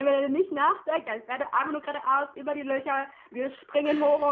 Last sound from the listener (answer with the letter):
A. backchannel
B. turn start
A